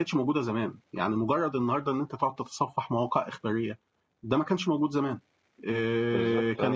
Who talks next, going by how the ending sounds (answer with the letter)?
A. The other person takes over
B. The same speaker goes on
B